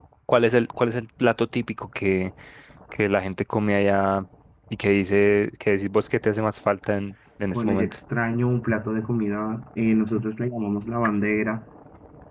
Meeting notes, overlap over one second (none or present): none